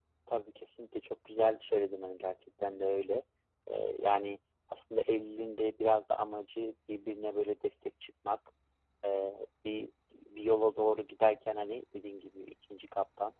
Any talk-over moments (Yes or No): No